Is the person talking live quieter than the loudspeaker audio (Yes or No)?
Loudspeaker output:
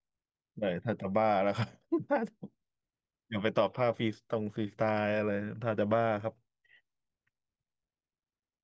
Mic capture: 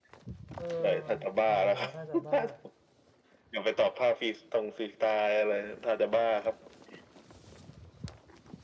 Yes